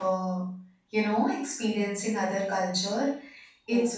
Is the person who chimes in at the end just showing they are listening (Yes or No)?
Yes